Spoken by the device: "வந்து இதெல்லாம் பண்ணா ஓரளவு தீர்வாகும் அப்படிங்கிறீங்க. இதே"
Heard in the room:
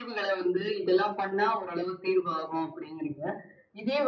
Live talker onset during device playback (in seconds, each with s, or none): none